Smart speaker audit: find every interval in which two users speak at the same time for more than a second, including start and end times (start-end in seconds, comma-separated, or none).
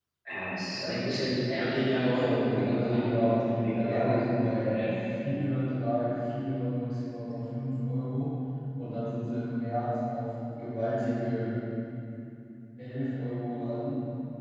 2.1-4.0